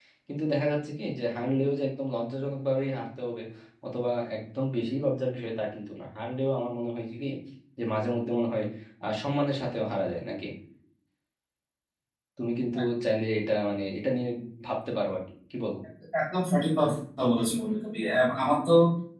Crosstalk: none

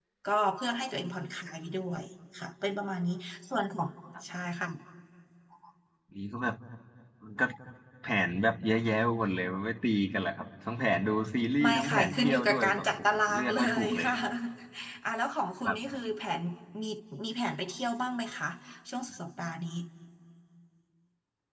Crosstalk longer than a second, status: present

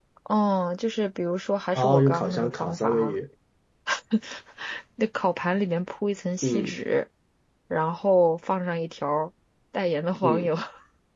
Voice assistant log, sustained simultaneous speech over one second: present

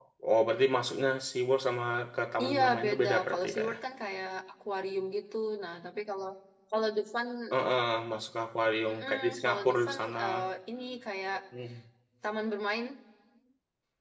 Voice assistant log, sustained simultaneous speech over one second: present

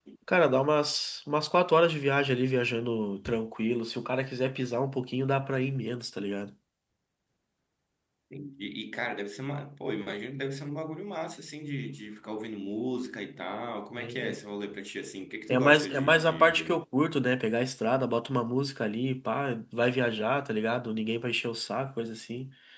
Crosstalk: present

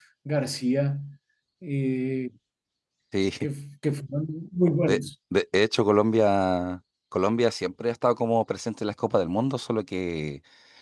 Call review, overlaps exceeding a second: none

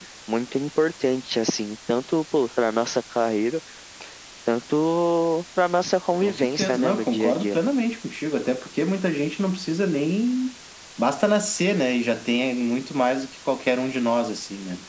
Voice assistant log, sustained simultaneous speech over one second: present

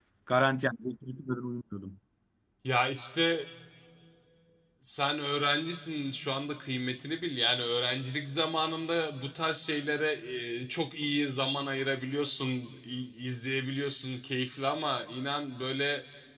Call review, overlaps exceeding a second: none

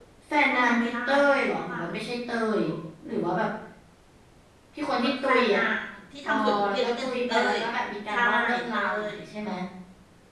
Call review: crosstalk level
present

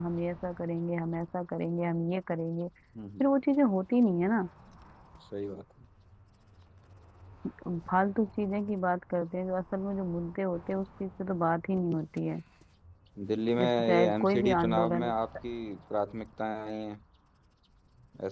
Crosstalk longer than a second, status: present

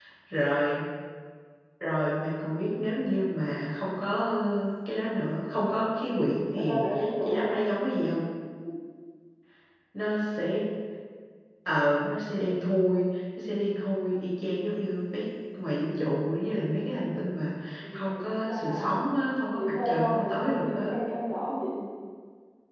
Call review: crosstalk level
present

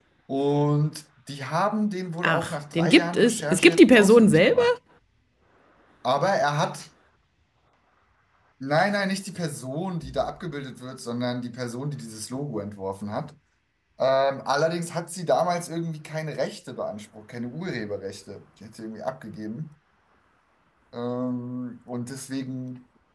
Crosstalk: present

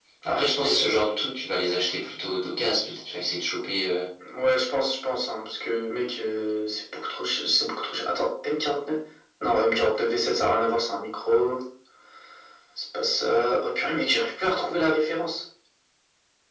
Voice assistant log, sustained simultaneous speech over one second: none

